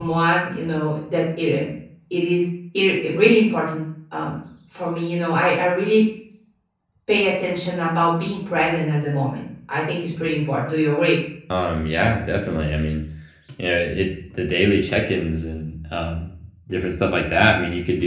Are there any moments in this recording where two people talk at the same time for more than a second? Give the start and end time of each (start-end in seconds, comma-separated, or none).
none